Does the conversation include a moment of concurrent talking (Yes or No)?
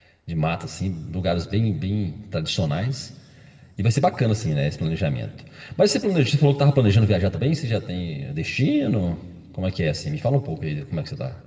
No